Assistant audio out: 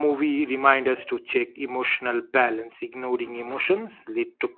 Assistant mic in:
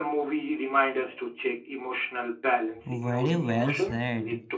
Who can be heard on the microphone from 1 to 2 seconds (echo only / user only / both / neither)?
echo only